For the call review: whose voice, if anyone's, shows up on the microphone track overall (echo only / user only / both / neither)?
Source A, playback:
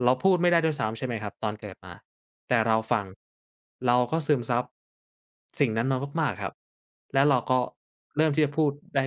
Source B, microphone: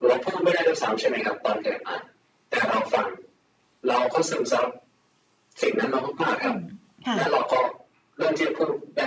both